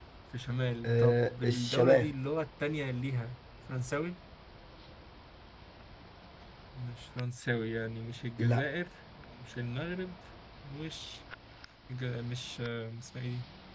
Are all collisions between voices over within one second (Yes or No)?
No